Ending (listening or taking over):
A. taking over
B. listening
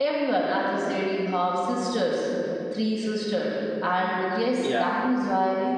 B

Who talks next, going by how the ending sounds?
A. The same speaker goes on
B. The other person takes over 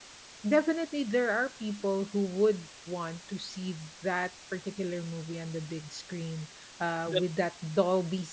A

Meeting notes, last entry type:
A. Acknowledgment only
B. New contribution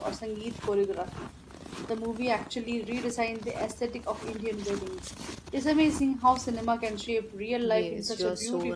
B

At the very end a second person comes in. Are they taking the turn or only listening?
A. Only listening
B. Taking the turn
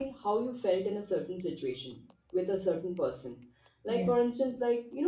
A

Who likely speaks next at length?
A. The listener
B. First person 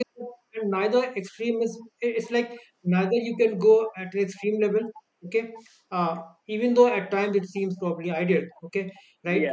B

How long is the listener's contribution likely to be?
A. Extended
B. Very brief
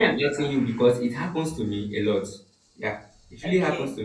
B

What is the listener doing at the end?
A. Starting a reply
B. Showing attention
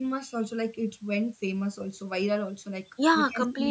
A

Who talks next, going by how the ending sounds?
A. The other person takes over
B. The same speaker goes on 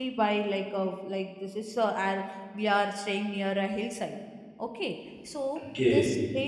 B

